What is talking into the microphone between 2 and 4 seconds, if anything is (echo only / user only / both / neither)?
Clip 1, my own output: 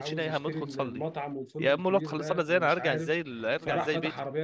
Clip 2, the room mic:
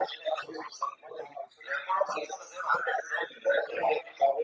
echo only